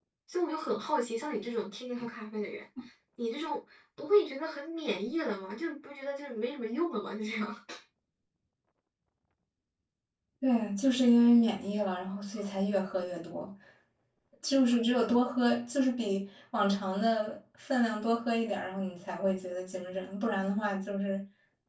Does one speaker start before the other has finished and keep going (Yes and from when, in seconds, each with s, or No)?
No